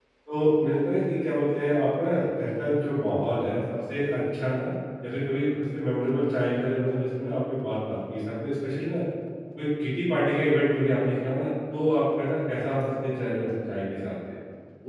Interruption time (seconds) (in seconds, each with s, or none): none